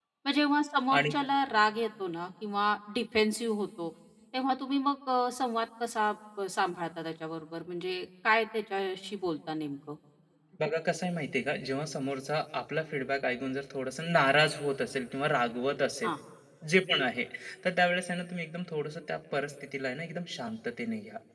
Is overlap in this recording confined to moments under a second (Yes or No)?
Yes